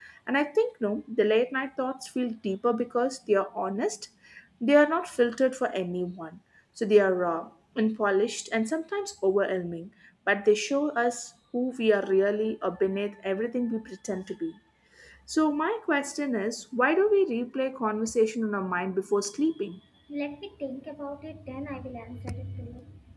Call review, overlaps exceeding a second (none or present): none